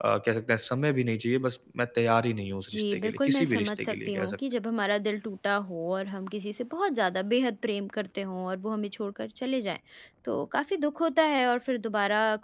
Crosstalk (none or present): present